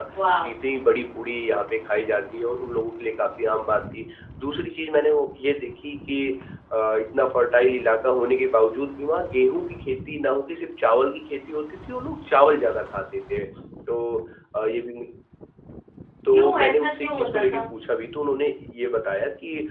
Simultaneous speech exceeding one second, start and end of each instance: 16.3-17.6

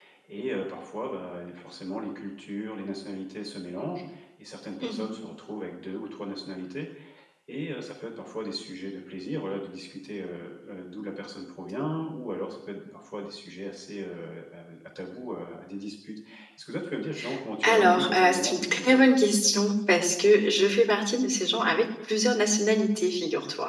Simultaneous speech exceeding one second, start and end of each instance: 17.6-19.0

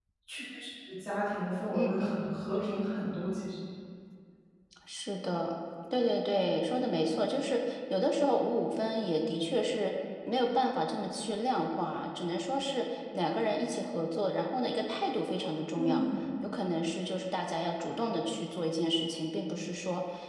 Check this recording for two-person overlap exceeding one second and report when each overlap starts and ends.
none

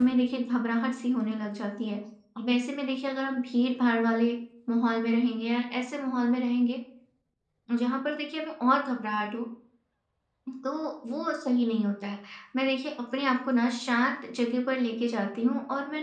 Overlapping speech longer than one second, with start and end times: none

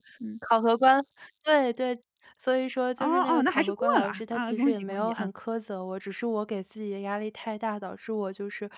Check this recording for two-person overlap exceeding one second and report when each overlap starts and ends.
3.0-5.3

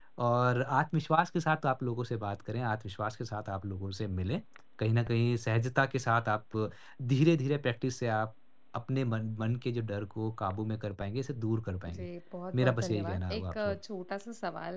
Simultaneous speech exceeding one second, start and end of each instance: 12.5-13.8

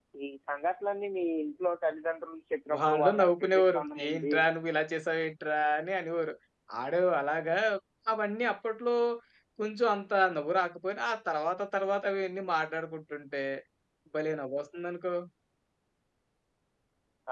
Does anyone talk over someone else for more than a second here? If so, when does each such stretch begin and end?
2.8-4.3

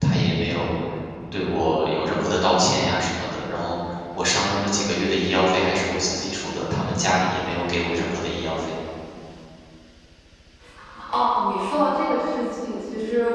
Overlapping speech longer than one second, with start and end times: none

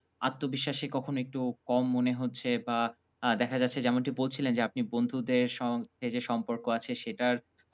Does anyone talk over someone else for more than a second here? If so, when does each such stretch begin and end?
none

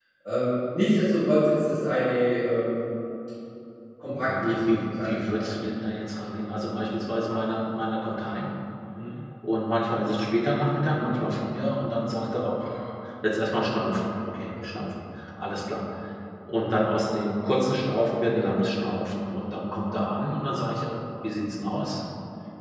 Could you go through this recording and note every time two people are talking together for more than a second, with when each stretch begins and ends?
4.2-5.4

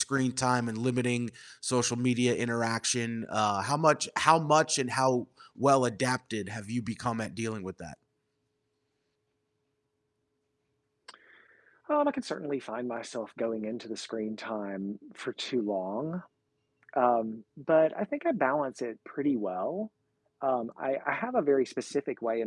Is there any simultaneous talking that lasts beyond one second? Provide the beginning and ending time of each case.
none

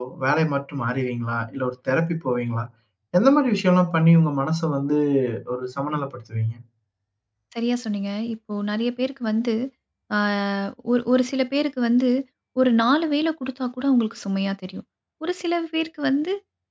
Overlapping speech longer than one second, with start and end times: none

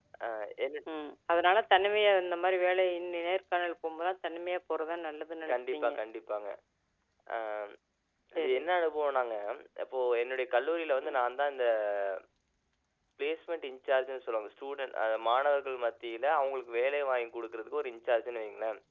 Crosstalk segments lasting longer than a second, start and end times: none

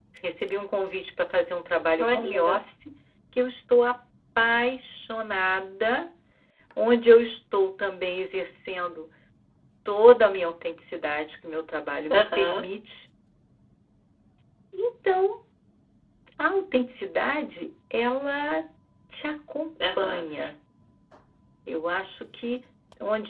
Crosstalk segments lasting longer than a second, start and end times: none

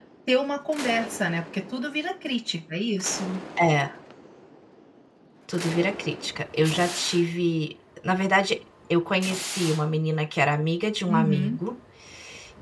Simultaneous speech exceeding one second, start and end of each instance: none

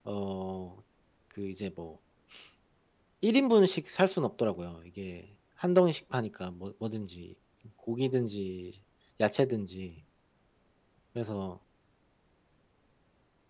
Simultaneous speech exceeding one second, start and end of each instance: none

